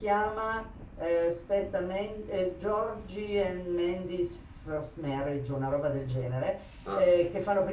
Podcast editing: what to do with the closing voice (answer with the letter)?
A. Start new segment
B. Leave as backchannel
B